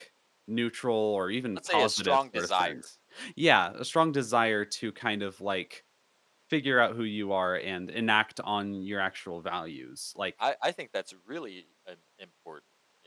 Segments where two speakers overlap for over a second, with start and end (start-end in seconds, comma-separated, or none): 1.6-2.8